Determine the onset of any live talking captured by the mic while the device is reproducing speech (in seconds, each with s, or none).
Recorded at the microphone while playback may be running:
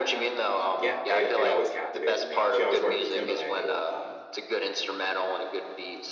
0.8 s